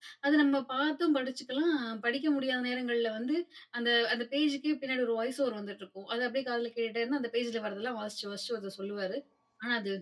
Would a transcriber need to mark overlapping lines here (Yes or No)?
No